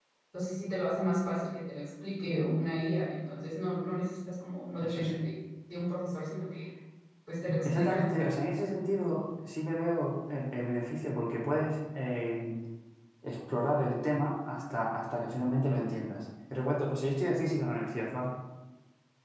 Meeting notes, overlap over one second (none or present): none